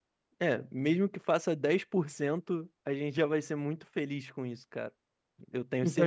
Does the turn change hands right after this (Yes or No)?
Yes